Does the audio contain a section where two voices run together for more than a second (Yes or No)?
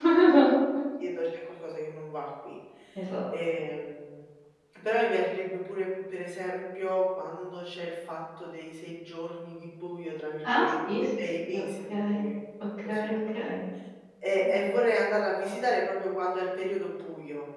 Yes